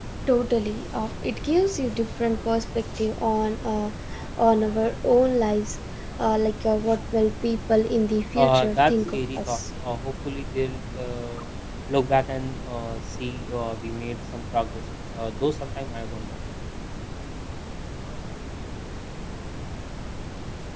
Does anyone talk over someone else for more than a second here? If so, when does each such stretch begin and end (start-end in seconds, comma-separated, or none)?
8.3-9.6